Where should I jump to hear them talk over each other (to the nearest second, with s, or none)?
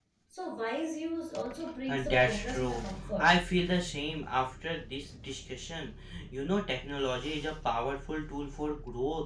2 s